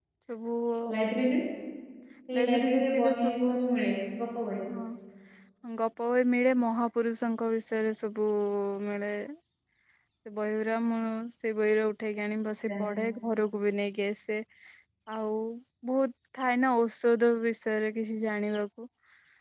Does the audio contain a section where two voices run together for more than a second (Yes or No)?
Yes